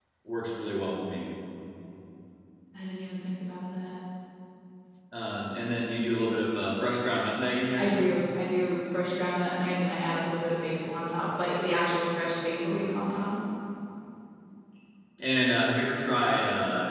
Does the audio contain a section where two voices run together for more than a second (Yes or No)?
No